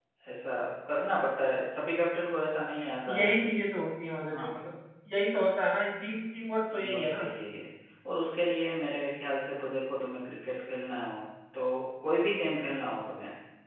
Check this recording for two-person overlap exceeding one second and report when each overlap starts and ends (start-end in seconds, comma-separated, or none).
none